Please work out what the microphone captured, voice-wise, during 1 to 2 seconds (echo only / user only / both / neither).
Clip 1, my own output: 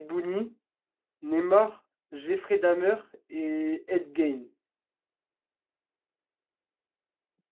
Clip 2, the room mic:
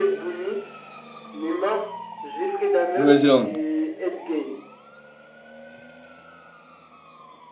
echo only